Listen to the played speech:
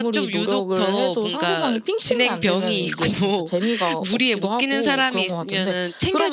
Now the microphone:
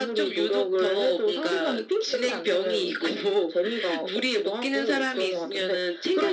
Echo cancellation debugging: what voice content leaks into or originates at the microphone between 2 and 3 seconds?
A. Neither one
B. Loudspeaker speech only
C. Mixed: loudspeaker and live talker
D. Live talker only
B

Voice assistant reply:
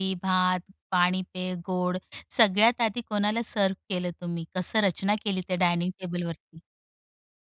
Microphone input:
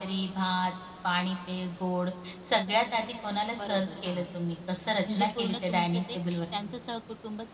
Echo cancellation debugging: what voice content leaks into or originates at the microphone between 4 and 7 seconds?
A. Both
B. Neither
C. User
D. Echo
A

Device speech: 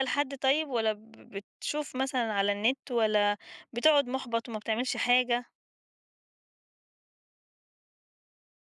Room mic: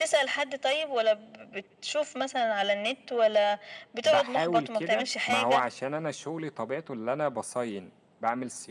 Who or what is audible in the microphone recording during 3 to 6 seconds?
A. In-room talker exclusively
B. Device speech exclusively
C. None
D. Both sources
D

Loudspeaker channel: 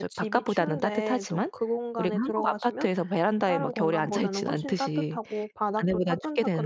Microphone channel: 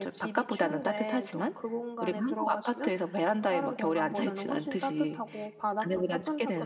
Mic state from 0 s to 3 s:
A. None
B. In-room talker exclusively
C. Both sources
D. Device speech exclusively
D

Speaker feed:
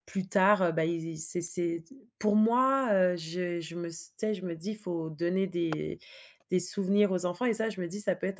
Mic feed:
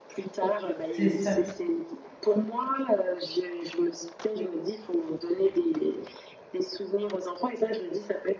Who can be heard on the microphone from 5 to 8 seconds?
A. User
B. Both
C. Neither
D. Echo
D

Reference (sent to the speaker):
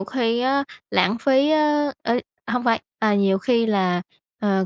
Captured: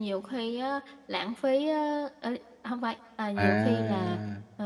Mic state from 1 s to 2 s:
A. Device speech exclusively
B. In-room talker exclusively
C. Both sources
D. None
A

